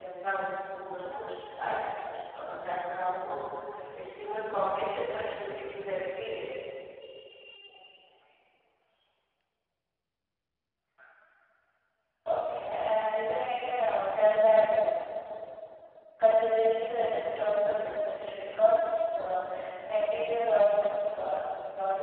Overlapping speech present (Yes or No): No